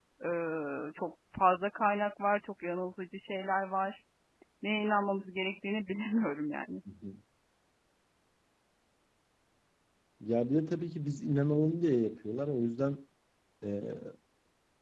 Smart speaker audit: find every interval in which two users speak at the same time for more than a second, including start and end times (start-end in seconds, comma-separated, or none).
none